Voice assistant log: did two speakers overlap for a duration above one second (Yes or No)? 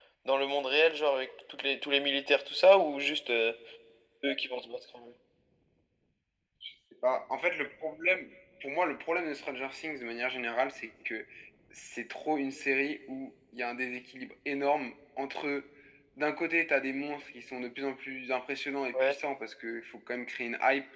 No